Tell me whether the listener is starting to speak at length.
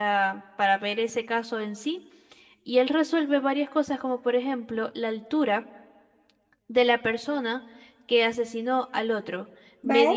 No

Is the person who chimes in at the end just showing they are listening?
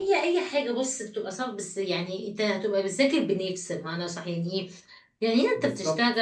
Yes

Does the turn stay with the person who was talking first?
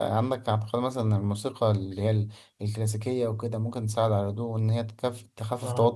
Yes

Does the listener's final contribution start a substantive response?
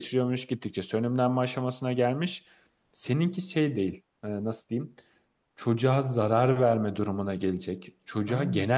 No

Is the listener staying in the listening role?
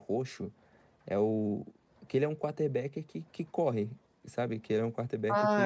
No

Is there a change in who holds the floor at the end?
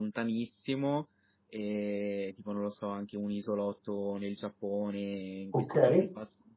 No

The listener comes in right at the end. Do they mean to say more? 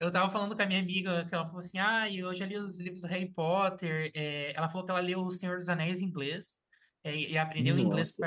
No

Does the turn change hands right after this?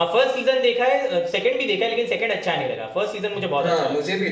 Yes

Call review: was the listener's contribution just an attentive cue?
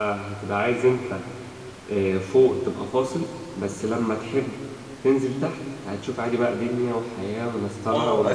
No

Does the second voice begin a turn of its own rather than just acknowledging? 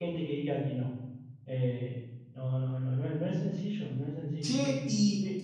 Yes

